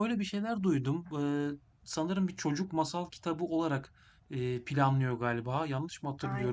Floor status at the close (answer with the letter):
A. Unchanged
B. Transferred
B